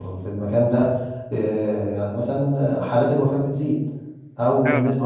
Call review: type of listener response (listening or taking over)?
listening